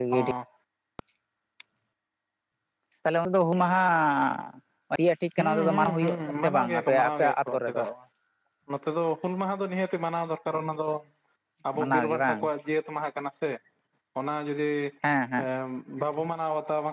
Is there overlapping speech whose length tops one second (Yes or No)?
Yes